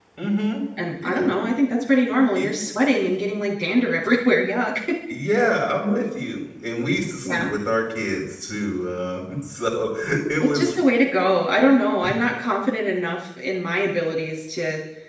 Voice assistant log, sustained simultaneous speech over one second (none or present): none